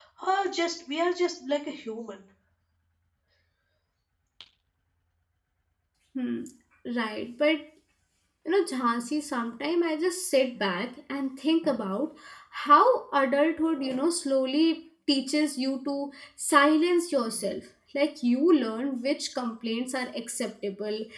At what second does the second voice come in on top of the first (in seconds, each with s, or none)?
none